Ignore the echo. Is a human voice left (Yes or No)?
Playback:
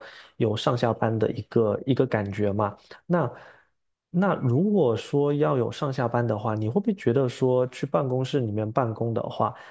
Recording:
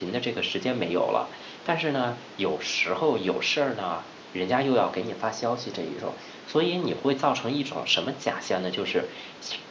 Yes